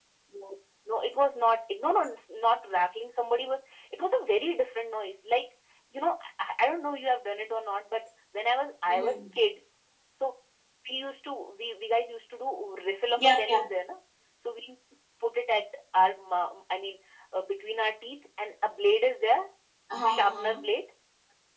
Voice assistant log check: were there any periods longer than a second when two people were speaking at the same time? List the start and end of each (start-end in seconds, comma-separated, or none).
none